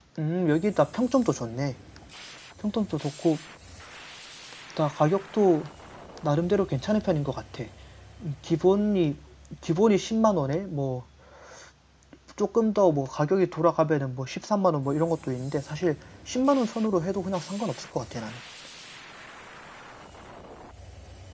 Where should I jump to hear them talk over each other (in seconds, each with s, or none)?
none